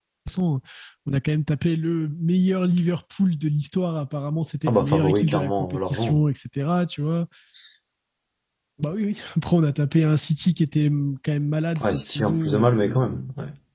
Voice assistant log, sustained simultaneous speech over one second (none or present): present